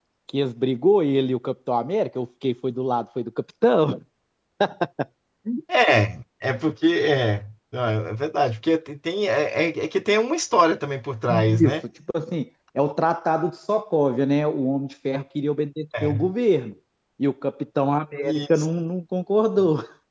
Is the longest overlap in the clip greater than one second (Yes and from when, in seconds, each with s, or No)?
No